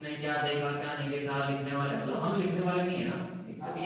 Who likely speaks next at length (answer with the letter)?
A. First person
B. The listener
B